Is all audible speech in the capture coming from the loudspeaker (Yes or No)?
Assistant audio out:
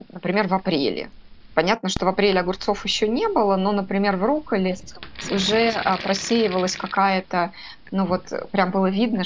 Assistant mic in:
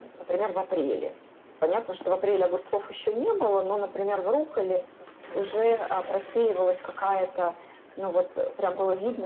Yes